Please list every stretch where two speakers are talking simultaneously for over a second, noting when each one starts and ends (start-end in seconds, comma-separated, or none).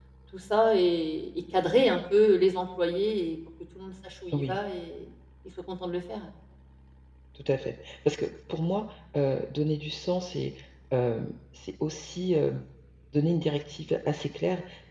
none